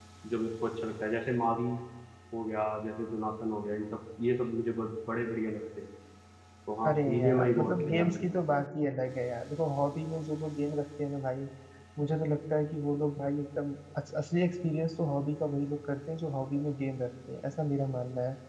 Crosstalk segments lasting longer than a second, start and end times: 6.8-8.3

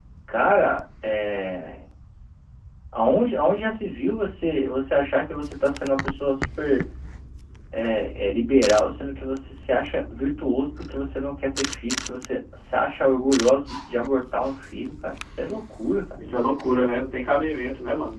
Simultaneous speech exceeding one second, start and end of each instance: none

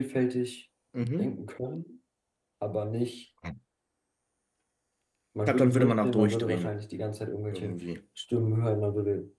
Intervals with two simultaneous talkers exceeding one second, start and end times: 5.5-6.7

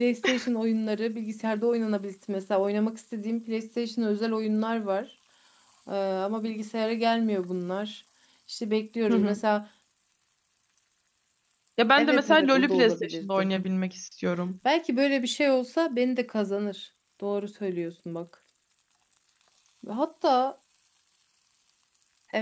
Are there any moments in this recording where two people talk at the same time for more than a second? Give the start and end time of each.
12.0-13.5

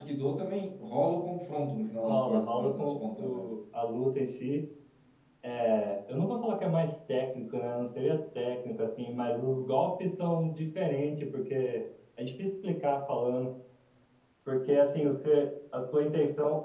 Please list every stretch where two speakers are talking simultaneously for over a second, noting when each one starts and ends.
2.0-3.5

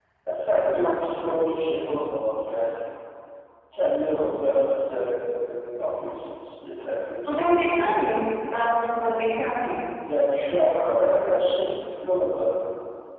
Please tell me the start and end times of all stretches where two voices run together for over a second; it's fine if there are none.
none

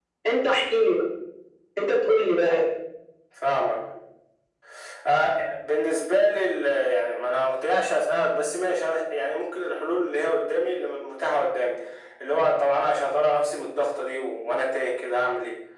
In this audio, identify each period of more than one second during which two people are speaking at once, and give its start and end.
none

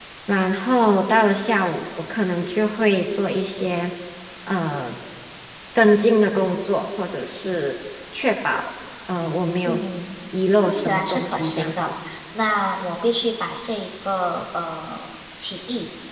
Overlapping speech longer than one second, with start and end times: 10.7-11.9

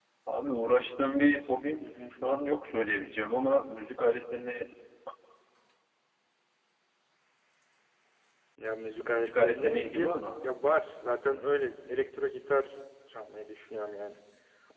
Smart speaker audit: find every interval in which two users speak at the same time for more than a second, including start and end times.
9.1-10.4

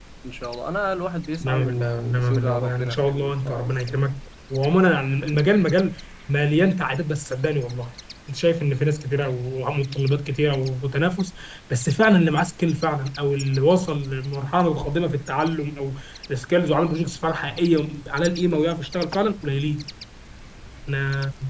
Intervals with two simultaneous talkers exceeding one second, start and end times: 1.4-3.7

